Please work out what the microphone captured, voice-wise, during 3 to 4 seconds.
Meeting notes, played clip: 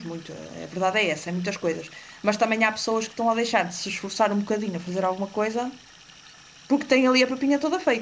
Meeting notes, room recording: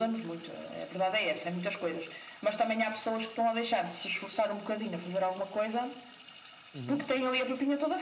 echo only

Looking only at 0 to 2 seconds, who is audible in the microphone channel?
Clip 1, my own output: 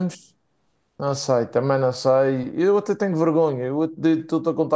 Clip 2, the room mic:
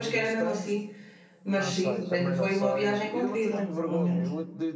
both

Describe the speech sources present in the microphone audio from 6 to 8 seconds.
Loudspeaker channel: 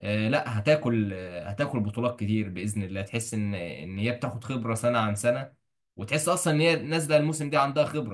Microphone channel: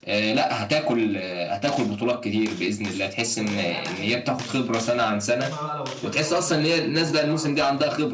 both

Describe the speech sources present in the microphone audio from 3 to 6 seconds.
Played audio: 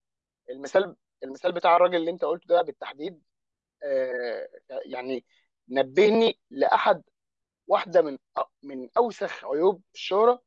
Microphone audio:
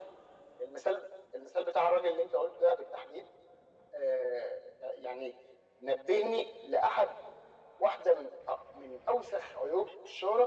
echo only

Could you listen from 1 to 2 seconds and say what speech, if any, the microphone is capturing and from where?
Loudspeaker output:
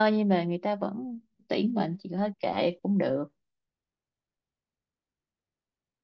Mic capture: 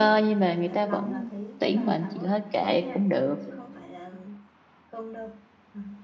both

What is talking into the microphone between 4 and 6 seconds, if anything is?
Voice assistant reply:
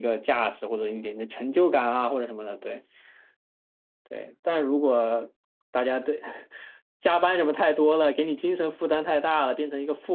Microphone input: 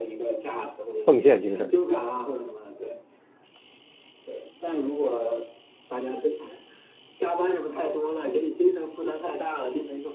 echo only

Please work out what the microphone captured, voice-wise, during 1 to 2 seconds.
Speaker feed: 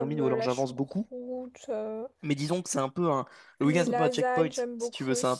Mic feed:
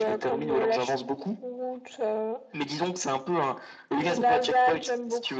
echo only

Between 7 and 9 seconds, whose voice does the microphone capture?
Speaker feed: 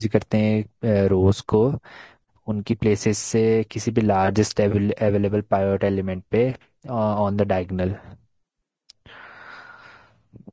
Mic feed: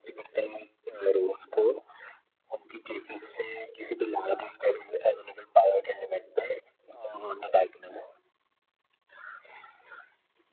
echo only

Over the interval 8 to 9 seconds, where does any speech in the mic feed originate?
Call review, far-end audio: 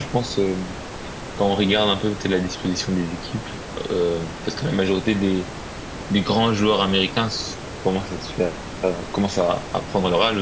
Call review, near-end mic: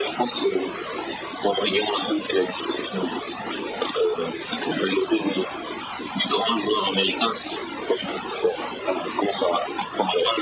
echo only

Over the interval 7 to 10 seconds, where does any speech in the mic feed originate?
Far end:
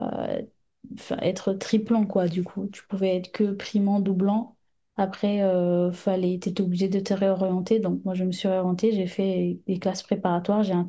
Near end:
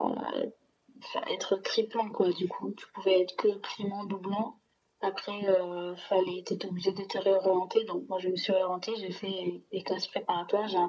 echo only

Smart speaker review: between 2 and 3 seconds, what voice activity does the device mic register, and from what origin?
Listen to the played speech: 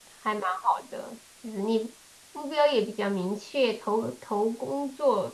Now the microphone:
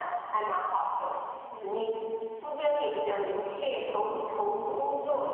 echo only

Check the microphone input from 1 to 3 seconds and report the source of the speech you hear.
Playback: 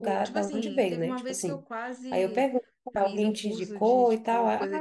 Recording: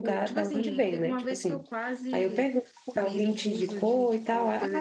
echo only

